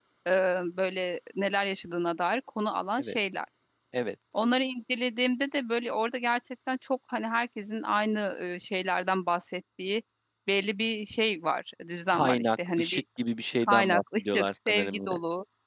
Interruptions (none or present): present